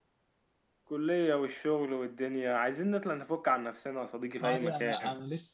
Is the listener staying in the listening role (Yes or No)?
No